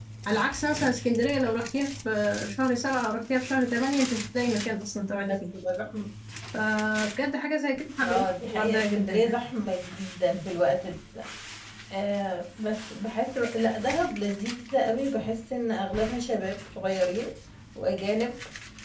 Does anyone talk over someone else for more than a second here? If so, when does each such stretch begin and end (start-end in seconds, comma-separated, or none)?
8.0-9.3